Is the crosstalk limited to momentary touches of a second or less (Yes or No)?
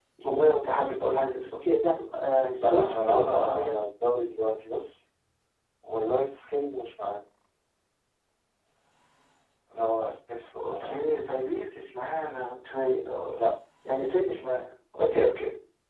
No